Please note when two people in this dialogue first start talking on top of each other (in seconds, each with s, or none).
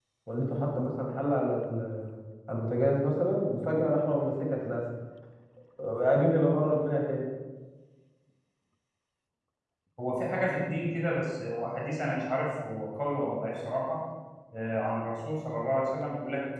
none